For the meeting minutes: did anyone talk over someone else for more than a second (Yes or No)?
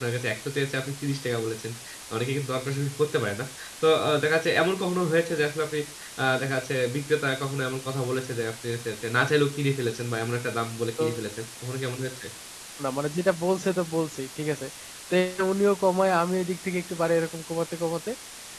No